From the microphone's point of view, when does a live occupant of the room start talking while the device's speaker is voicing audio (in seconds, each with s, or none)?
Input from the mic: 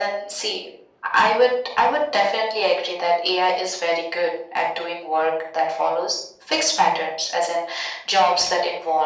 none